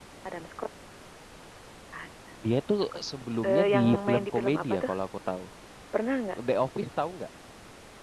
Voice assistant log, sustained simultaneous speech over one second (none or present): present